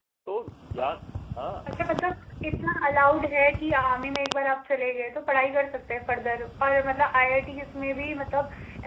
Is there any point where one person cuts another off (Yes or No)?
No